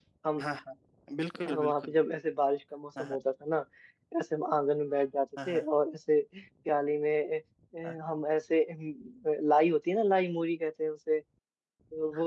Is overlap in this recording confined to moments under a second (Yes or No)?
Yes